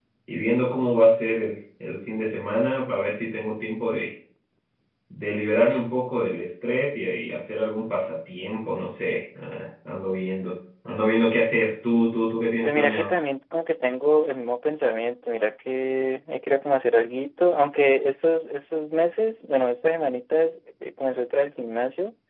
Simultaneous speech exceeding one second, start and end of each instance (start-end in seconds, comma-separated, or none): none